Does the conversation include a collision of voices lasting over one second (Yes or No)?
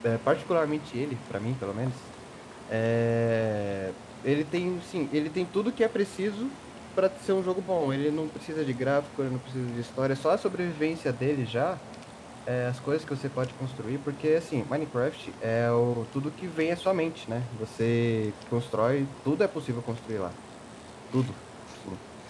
No